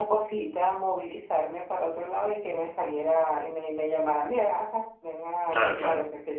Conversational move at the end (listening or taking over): listening